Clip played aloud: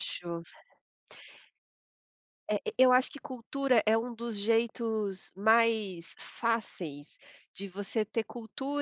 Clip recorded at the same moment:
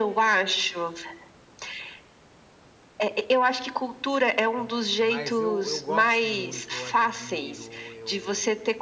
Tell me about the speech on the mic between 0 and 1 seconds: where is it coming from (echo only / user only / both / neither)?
echo only